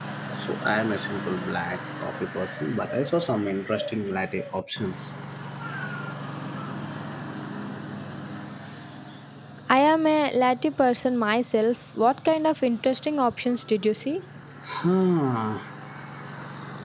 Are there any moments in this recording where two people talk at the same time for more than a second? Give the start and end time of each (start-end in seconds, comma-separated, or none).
none